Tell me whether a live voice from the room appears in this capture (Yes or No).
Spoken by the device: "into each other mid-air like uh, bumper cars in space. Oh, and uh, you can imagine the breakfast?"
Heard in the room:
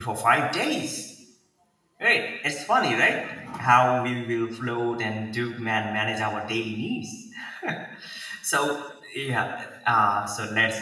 Yes